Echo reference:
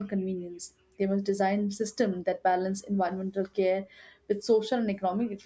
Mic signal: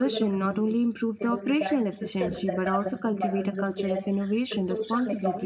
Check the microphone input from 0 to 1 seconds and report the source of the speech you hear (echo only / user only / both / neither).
both